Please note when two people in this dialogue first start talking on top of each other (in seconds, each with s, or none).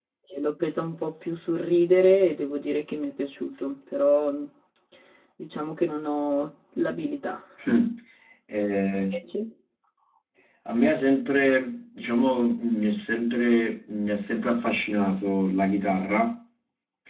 none